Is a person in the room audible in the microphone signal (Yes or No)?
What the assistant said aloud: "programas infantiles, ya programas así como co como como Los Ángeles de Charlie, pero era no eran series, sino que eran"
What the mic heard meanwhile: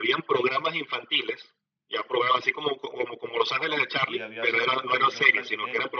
Yes